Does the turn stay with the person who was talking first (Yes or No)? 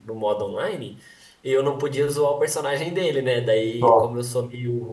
Yes